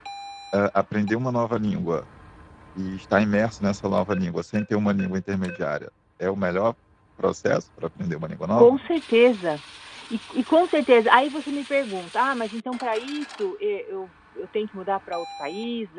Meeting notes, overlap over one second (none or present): none